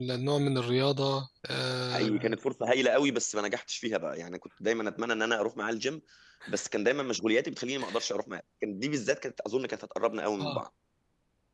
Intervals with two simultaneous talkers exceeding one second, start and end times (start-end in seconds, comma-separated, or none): none